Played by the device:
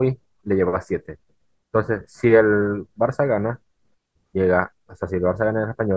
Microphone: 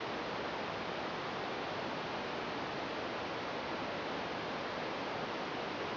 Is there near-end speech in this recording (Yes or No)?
No